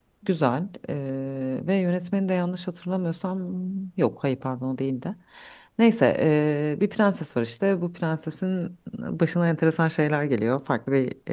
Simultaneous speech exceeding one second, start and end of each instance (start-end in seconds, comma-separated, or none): none